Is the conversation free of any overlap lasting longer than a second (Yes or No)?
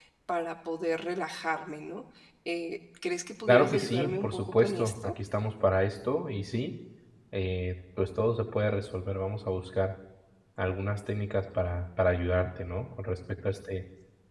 No